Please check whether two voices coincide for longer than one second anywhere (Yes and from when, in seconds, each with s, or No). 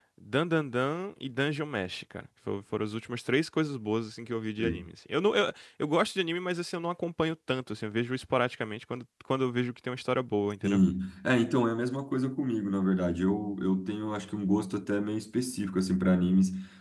No